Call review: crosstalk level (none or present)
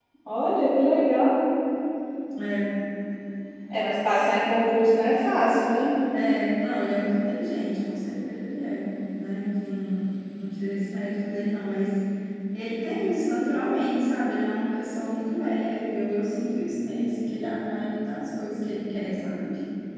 none